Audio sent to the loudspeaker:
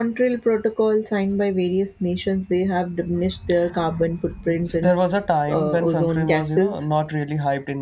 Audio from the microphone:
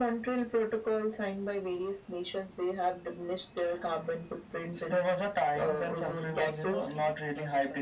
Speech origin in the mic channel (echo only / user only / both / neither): both